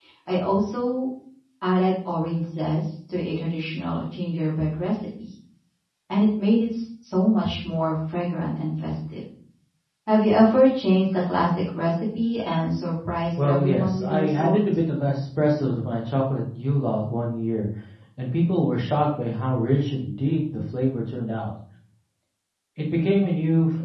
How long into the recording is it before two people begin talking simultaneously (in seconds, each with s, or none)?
13.4 s